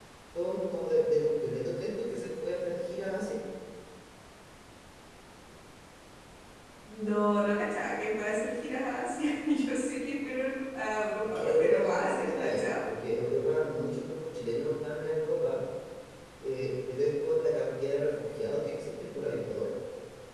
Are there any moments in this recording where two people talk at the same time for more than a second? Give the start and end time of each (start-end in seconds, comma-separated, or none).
11.2-12.8